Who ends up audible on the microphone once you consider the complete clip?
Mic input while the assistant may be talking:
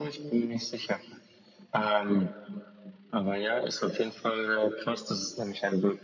echo only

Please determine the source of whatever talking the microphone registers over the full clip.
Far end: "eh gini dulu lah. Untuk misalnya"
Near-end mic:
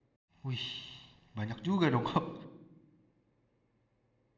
user only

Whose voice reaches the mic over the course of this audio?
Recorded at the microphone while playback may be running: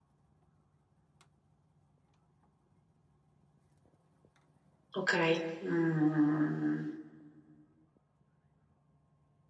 user only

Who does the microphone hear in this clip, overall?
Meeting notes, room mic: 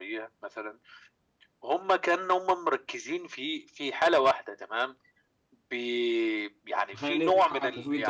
both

